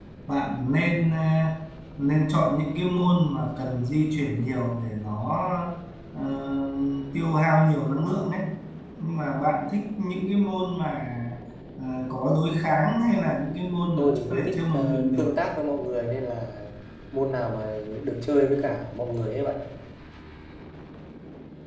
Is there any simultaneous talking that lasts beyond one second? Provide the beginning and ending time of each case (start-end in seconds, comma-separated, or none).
14.0-15.3